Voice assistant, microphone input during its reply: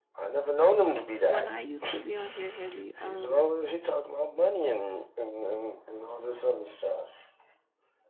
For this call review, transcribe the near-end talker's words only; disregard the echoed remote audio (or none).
When I used to be on here heavy, um,